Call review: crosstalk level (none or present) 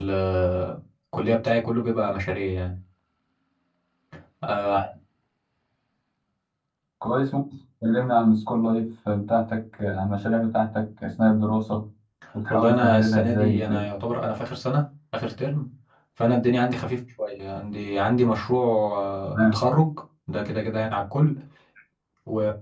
present